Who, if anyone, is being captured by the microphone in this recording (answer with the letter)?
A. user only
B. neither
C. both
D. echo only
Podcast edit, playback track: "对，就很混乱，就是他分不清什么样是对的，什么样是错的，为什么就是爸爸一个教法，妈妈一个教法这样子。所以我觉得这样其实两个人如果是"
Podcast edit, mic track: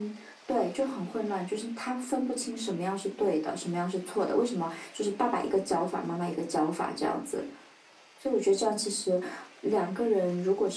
D